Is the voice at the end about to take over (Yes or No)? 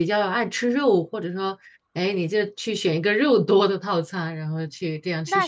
Yes